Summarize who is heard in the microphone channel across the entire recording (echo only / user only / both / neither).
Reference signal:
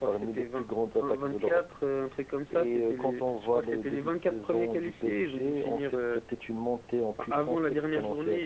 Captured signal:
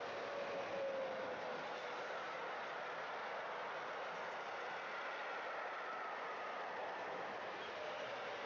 neither